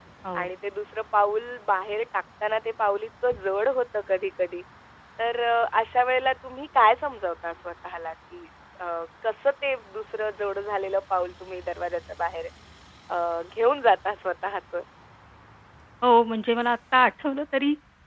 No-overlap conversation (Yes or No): Yes